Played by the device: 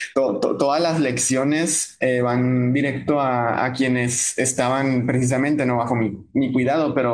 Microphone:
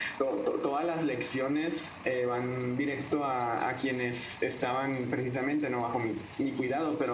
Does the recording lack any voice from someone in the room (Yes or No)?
Yes